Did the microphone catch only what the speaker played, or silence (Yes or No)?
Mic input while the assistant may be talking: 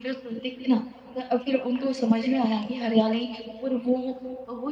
Yes